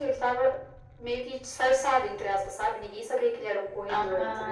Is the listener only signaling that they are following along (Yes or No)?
No